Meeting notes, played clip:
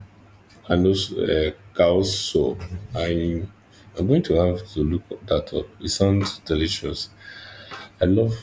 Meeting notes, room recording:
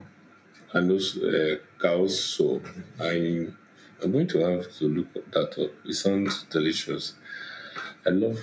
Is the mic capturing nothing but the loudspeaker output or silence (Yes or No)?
Yes